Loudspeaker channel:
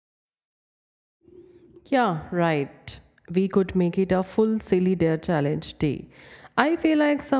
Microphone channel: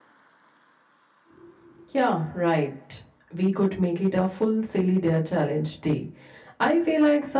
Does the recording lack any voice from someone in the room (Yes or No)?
Yes